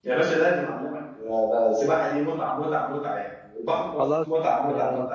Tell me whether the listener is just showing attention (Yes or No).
No